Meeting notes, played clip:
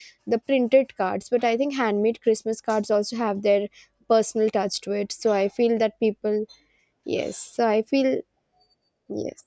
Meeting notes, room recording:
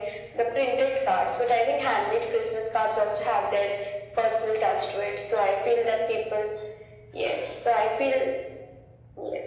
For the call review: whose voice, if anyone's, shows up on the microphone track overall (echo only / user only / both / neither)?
echo only